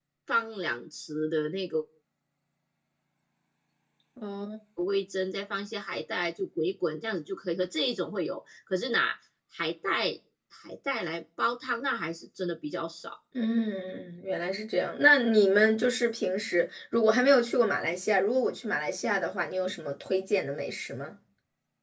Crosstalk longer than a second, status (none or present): none